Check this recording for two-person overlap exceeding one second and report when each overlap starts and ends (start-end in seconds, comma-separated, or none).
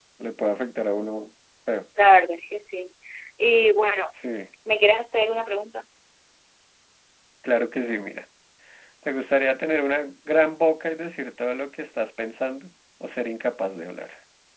none